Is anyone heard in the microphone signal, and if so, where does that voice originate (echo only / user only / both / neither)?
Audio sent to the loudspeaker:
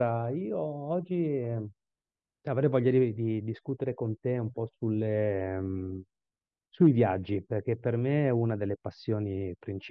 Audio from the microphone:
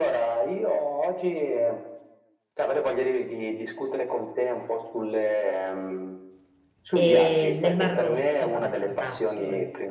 both